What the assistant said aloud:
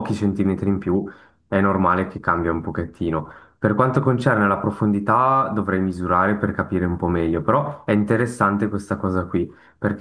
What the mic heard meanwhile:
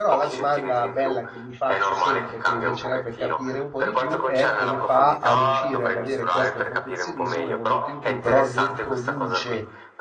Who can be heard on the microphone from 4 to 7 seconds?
both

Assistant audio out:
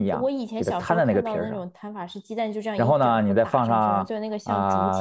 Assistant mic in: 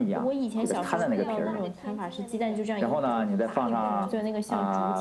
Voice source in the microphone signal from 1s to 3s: both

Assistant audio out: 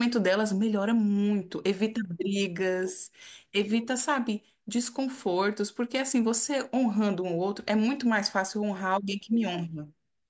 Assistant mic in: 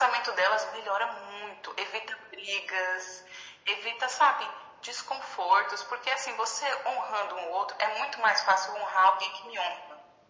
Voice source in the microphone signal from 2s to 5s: echo only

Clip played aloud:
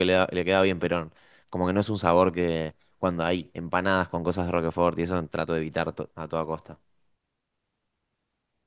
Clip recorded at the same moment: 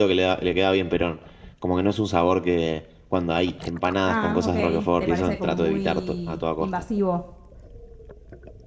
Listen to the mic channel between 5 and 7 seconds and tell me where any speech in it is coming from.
both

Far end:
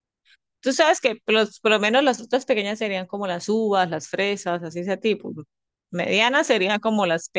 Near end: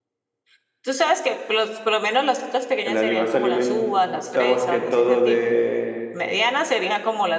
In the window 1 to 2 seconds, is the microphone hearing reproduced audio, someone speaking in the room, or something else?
echo only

